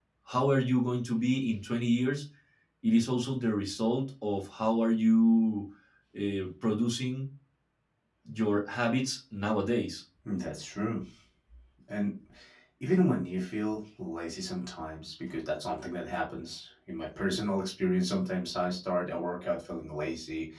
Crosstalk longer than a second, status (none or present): none